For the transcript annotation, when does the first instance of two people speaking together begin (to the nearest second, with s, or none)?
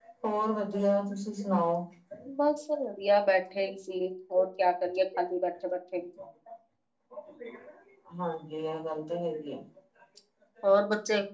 none